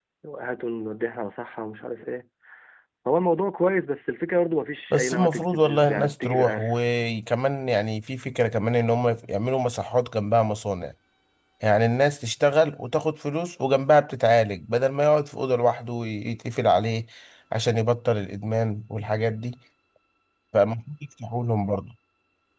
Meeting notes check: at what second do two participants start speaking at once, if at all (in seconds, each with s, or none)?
4.9 s